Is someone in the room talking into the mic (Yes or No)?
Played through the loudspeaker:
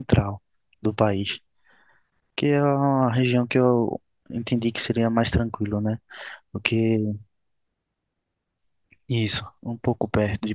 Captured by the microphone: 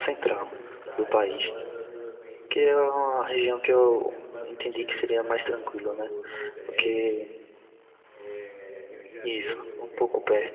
Yes